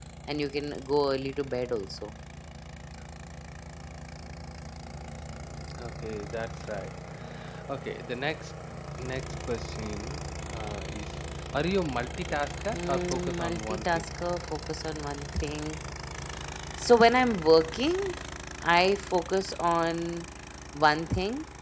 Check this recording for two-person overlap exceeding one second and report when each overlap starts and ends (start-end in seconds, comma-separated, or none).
12.7-14.1